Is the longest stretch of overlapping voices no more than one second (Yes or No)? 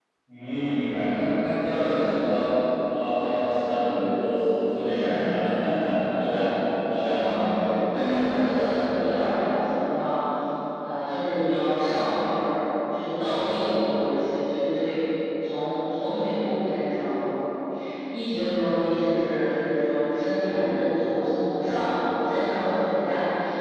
Yes